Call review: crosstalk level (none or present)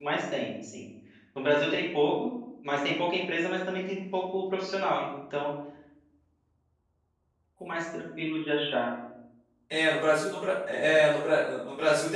none